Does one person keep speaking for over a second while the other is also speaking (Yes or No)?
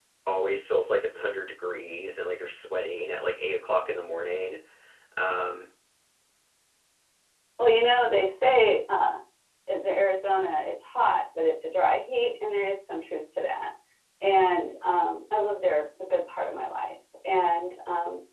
No